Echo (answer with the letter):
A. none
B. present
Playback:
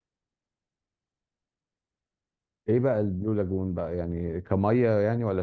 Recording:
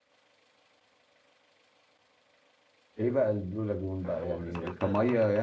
B